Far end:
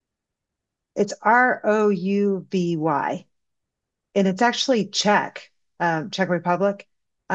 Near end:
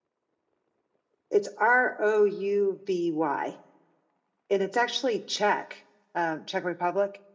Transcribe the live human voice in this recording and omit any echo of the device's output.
none

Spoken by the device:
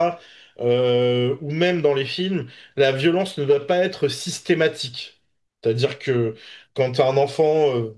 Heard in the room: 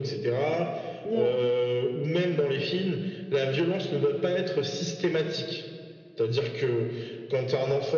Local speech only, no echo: Non,

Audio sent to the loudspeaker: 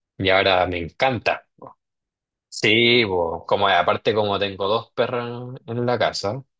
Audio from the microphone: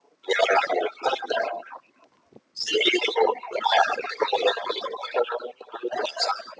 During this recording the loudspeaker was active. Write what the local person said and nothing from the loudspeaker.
none

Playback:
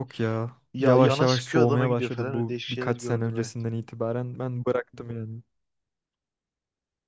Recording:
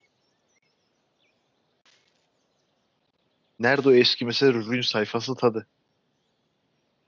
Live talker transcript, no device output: Nerede o eski mesela ürün sayfası tadı?

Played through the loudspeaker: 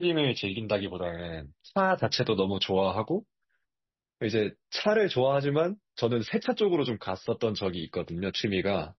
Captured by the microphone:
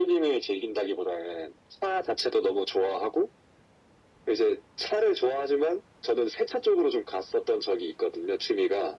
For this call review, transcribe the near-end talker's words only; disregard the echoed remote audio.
none

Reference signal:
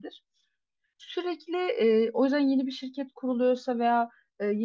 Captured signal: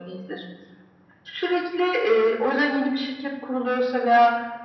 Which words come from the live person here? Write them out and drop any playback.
none

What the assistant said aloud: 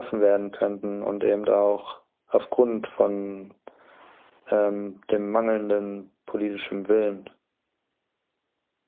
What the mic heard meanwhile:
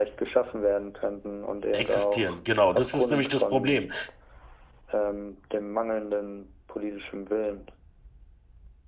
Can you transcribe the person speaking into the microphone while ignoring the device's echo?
existieren, genau, das ist nämlich das Problem.

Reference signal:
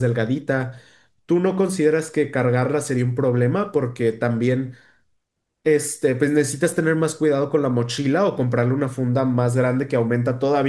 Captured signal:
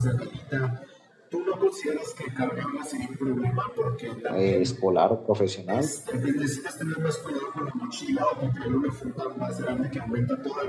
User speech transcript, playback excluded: eh, escolar o profesional,

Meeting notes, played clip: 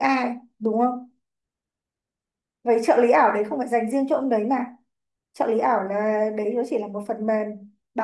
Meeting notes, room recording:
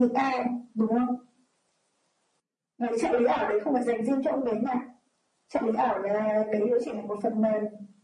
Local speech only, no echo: none

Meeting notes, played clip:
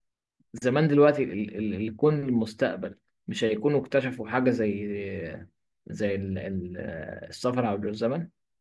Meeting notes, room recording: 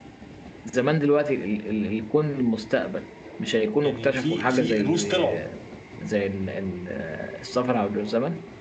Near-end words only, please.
يعني في في روس طلعوا

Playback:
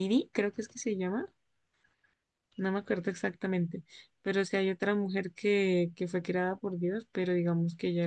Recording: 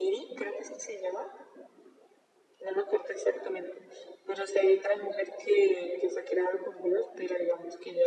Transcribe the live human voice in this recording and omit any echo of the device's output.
none

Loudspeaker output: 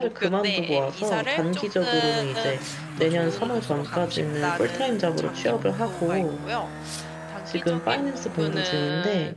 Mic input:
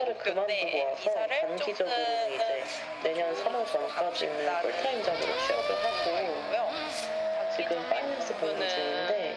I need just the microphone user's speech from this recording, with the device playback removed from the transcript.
none

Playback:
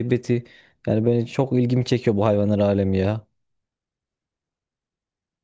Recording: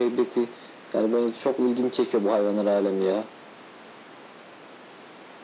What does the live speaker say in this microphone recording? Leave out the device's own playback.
none

